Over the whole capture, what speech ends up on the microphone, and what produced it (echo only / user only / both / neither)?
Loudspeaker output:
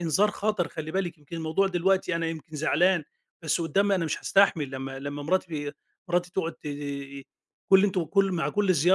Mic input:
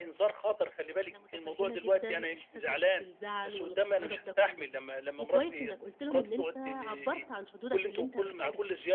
both